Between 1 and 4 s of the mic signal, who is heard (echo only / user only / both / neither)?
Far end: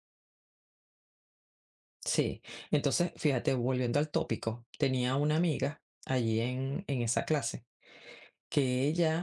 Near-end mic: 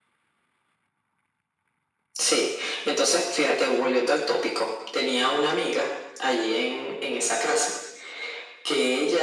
echo only